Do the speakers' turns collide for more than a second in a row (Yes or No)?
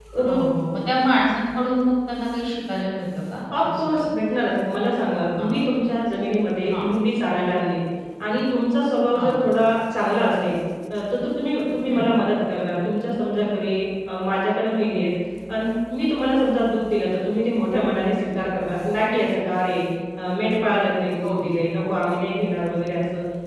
No